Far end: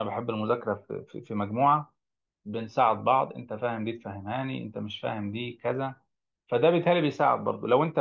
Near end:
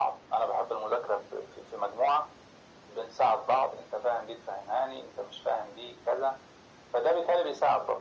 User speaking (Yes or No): No